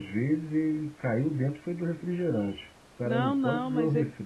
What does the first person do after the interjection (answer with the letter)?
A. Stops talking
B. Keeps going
A